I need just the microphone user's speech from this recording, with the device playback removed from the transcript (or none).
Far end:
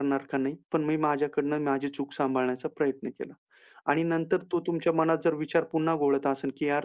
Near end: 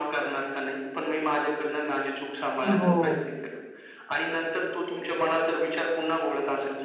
हो.